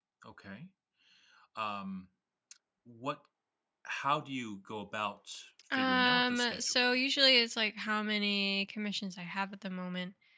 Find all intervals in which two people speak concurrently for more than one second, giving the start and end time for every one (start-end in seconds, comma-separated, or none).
5.7-7.0